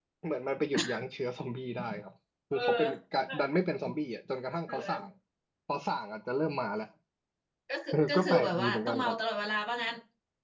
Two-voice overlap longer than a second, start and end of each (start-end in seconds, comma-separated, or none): 7.9-9.2